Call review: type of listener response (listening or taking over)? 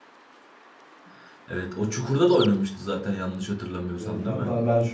taking over